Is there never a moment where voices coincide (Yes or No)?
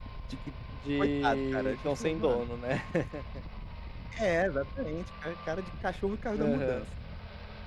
No